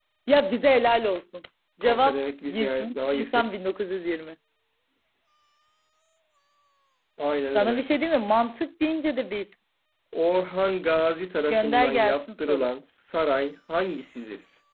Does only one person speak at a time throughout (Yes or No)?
No